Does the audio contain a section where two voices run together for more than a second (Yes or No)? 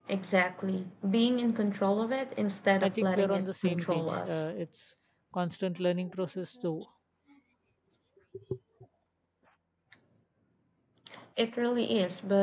Yes